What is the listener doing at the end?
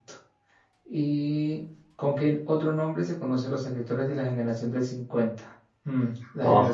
listening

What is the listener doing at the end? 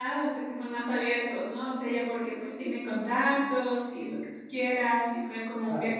listening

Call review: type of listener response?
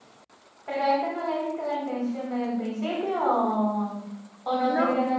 listening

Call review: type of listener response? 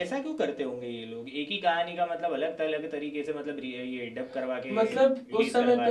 taking over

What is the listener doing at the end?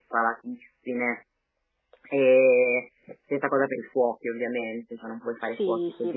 taking over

